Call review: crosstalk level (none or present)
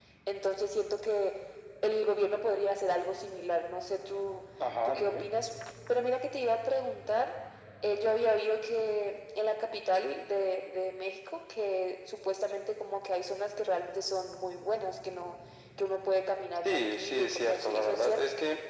present